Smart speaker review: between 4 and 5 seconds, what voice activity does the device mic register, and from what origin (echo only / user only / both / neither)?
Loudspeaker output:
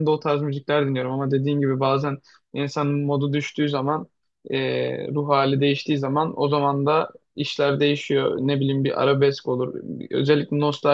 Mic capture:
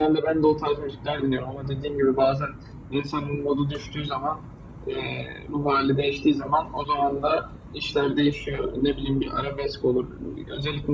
echo only